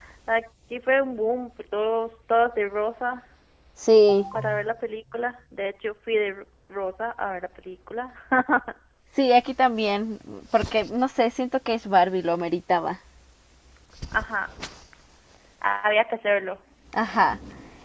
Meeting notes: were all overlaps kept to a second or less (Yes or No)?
Yes